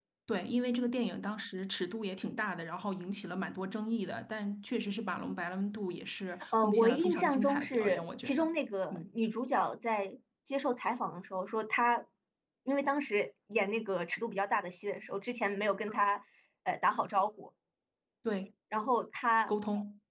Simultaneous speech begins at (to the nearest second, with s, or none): 7 s